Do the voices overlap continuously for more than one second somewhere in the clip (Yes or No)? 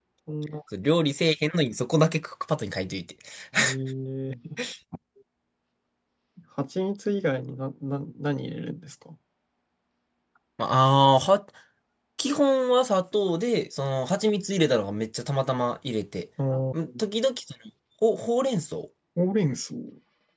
No